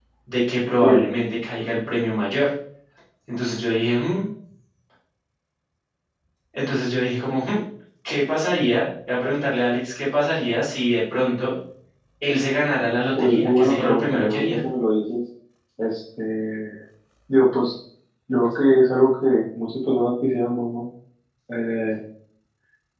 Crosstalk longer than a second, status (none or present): present